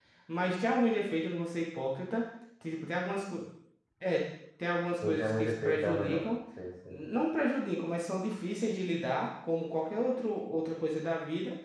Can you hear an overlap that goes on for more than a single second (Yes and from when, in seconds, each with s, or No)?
Yes, from 5.0 s